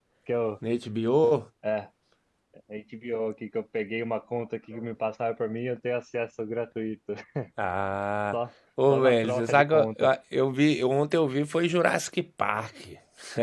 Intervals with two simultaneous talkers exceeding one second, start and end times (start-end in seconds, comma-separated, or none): 8.9-10.1